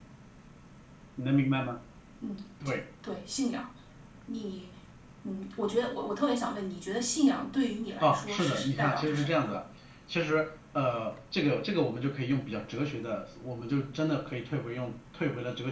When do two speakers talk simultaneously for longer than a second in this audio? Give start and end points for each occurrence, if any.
8.0-9.5

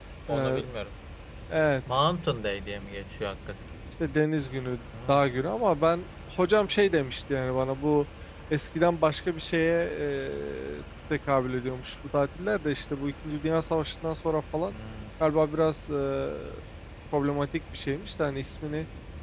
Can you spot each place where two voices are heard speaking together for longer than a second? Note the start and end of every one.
none

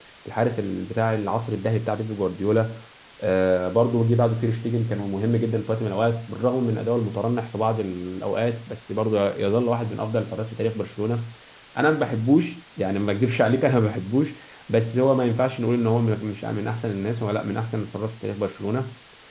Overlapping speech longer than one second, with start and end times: none

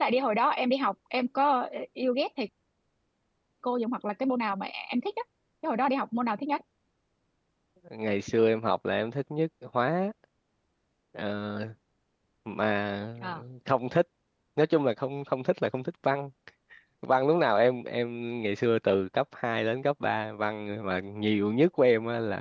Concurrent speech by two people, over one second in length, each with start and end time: none

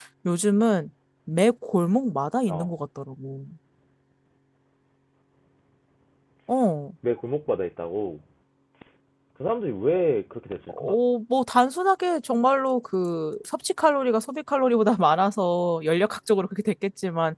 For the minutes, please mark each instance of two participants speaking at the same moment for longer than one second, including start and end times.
none

